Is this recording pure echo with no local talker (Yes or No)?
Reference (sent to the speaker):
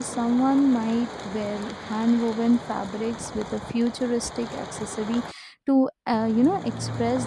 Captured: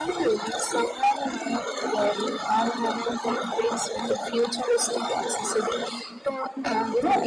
Yes